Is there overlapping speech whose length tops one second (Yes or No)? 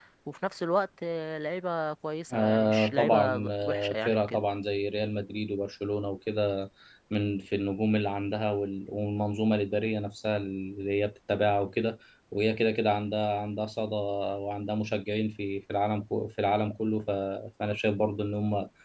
Yes